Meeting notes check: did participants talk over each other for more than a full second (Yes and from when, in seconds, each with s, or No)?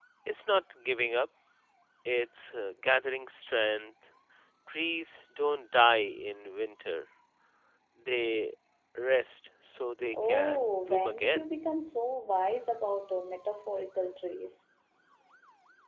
Yes, from 10.1 s